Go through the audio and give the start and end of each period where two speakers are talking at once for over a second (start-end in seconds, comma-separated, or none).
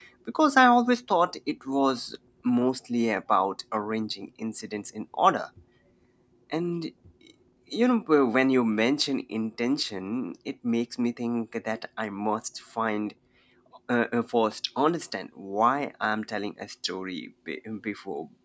none